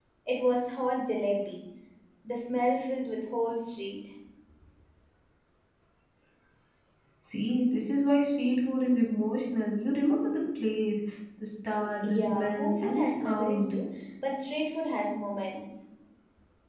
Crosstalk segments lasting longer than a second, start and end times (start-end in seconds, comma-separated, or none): 12.0-13.7